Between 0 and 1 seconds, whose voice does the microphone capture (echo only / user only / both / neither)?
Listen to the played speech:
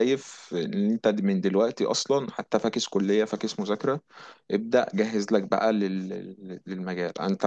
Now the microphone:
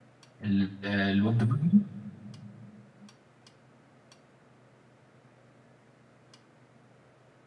user only